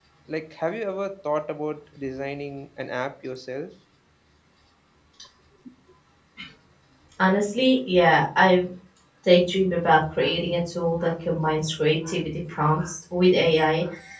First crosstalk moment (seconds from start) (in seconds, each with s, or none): none